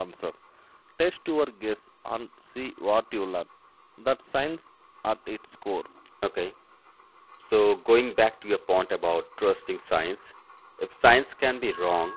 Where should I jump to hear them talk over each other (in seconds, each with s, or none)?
none